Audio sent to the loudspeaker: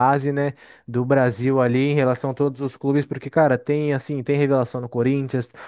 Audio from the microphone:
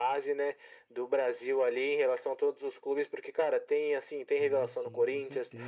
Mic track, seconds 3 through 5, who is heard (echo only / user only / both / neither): both